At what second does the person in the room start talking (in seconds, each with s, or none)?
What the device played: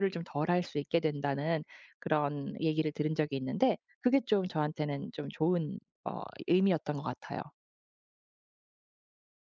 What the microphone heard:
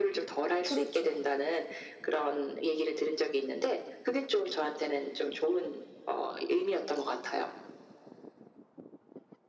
0.6 s